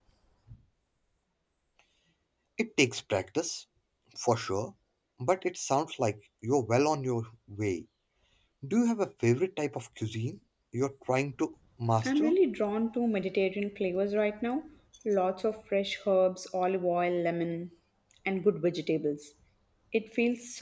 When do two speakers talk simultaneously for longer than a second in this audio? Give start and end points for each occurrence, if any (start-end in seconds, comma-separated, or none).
none